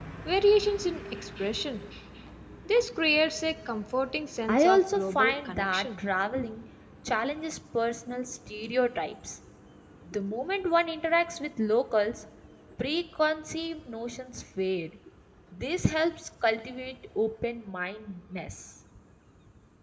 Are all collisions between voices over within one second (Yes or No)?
No